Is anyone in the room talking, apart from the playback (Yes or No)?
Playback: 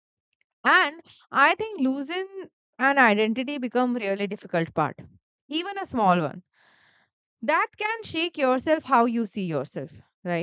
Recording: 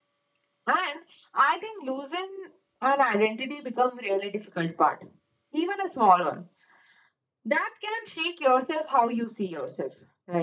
No